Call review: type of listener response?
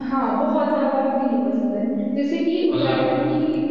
listening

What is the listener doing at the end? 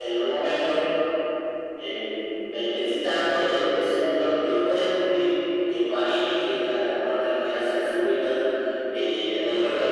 listening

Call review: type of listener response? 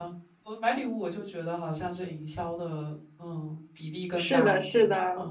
taking over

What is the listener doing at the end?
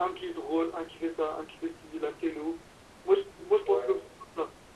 listening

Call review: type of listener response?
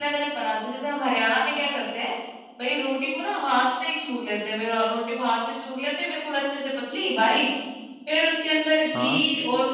listening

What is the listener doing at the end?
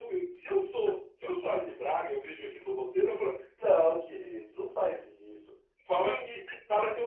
listening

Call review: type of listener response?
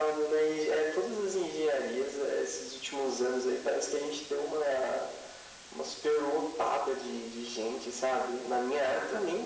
listening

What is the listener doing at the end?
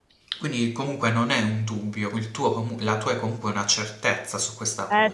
taking over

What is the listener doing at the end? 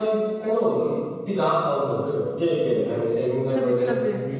listening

